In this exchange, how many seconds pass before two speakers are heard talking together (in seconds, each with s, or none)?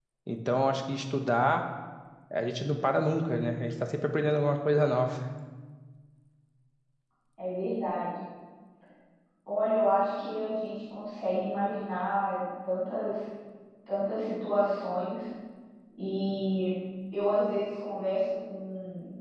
none